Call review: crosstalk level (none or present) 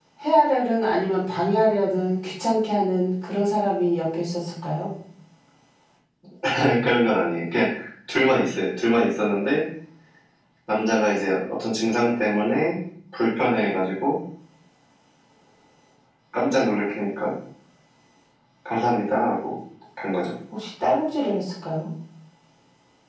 none